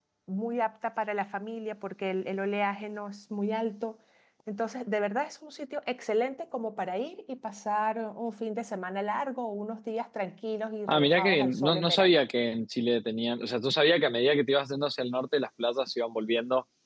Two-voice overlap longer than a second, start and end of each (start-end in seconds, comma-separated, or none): 10.9-12.1